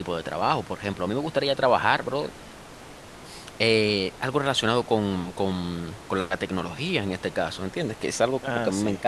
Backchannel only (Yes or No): Yes